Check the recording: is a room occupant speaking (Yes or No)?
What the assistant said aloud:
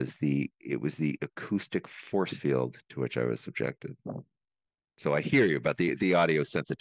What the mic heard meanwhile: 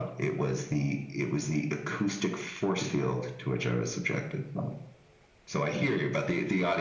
No